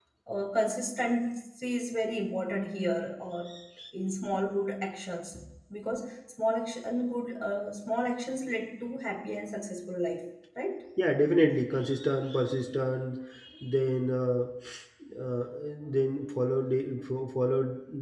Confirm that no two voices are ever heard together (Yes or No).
Yes